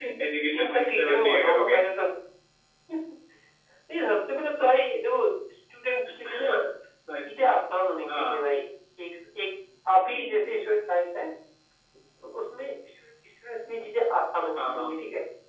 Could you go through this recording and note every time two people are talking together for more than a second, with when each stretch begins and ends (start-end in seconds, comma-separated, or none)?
0.5-1.8